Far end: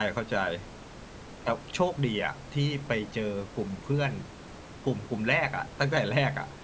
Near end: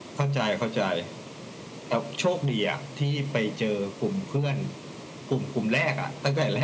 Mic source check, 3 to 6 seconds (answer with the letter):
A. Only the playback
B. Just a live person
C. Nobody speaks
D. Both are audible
A